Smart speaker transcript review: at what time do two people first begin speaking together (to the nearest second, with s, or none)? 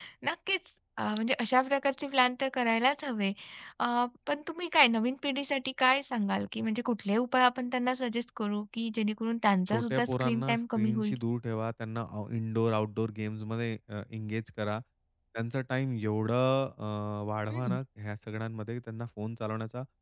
10 s